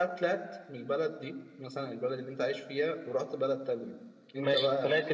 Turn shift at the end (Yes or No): Yes